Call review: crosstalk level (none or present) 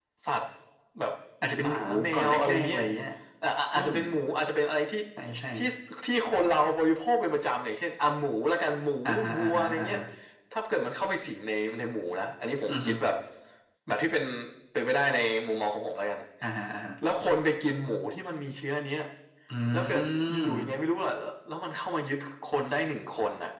present